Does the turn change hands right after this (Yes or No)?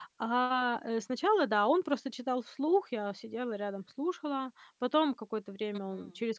No